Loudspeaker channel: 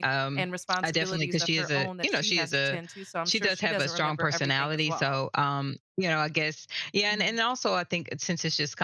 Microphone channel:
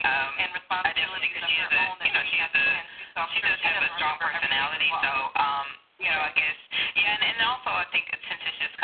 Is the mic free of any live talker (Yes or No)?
No